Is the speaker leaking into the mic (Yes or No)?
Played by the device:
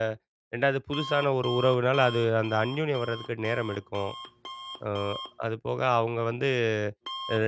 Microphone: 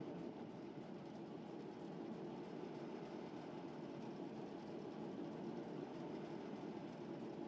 No